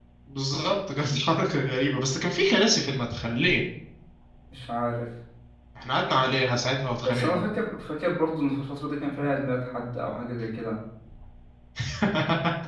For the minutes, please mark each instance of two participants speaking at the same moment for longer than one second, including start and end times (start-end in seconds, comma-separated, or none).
none